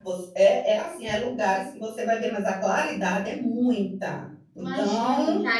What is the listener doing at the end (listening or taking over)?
taking over